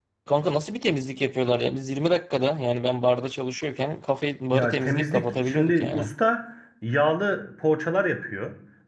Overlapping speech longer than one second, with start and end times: 4.5-6.1

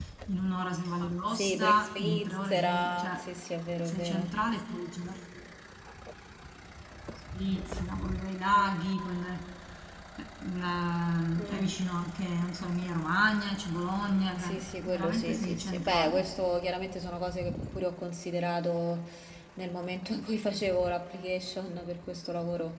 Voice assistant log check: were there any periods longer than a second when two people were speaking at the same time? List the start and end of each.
1.3-3.2, 14.4-16.3

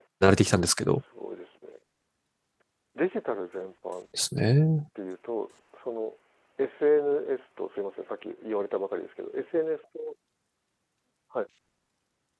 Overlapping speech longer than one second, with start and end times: none

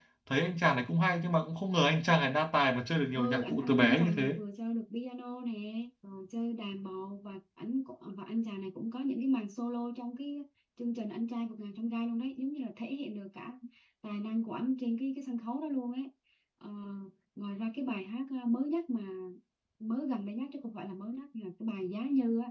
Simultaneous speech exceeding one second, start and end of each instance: 3.1-4.4

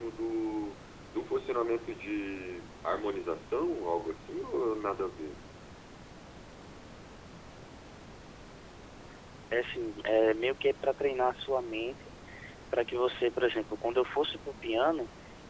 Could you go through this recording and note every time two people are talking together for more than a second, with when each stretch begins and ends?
none

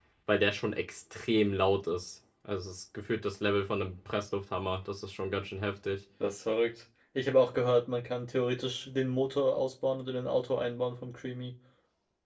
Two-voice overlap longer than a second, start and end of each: none

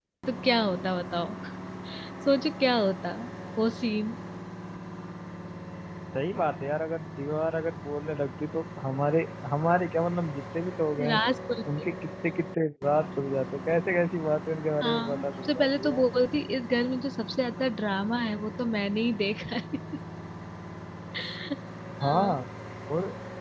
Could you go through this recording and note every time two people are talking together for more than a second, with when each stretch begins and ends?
14.8-16.0

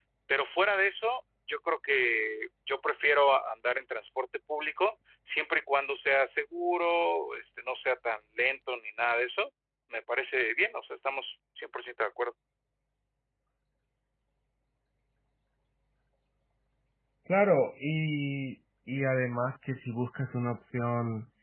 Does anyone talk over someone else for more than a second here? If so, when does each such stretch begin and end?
none

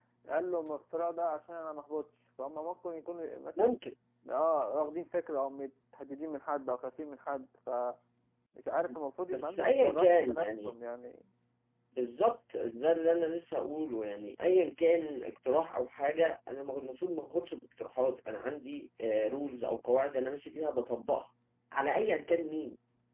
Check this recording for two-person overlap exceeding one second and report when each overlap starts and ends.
9.3-10.7

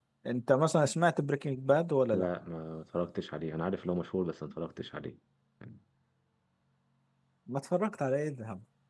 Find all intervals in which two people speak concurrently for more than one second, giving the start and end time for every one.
none

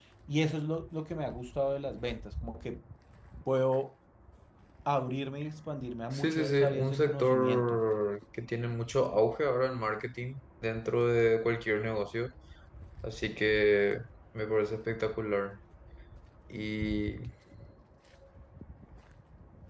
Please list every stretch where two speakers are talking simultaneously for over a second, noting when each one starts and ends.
6.1-7.8

